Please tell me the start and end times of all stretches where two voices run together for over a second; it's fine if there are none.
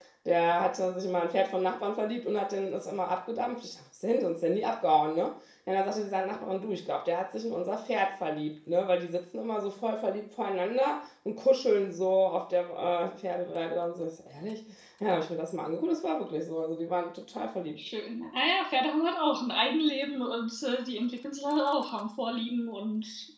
none

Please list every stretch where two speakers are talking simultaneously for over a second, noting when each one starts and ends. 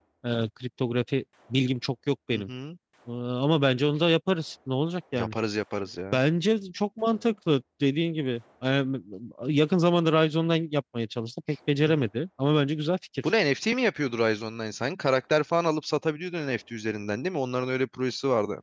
none

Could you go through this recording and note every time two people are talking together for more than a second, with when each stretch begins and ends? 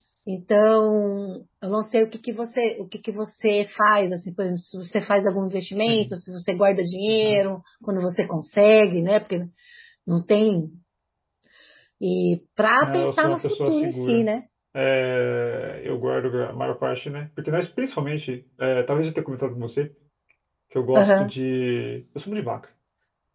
12.8-14.3

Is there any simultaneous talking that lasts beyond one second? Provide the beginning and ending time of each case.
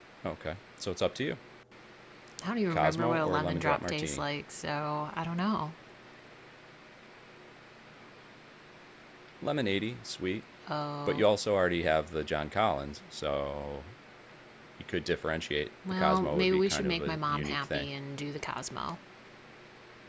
2.7-4.2, 15.9-17.9

